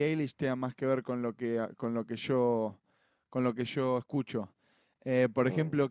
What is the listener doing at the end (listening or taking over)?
listening